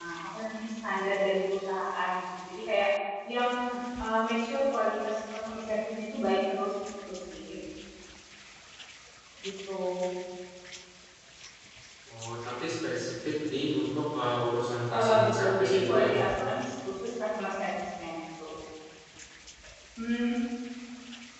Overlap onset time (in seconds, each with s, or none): 14.9 s